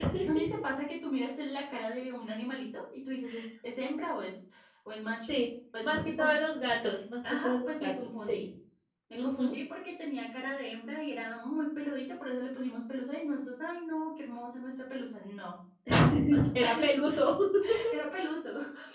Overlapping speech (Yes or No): Yes